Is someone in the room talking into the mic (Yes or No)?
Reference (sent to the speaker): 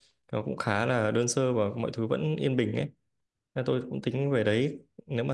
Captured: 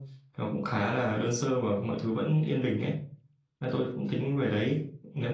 Yes